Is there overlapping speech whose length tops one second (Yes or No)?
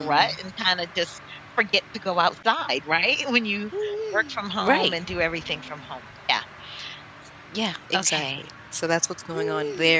No